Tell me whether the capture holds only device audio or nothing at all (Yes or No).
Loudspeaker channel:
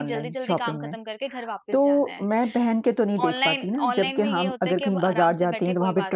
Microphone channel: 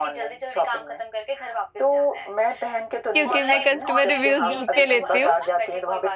No